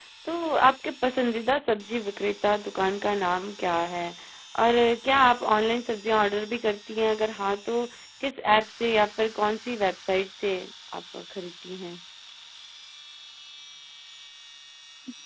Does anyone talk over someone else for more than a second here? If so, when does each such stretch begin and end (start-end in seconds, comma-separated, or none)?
none